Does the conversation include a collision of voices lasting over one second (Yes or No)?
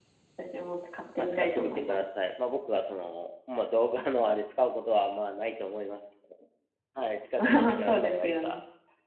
Yes